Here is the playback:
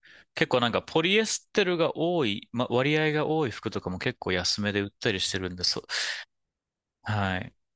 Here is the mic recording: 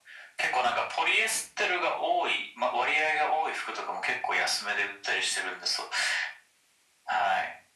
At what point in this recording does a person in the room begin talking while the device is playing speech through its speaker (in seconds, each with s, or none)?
none